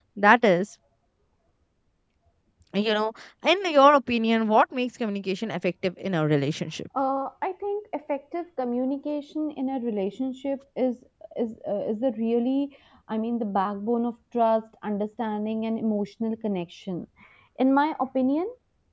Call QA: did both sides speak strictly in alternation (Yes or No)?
Yes